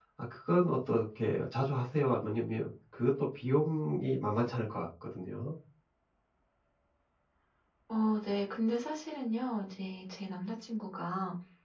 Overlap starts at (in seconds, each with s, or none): none